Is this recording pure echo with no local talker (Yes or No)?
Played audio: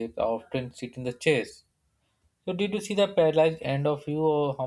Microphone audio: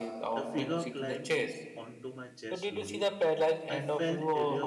No